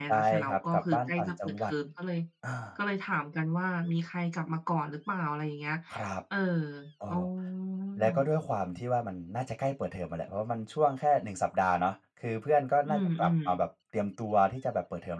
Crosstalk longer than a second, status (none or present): present